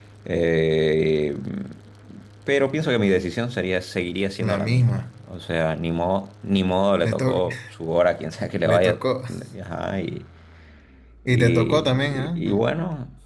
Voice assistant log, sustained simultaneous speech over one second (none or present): present